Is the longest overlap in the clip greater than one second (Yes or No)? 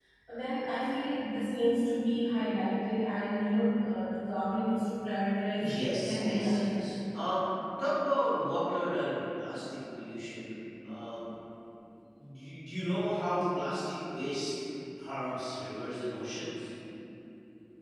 Yes